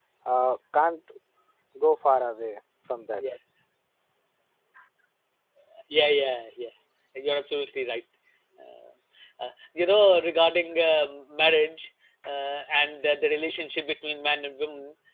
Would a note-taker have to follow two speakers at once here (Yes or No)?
No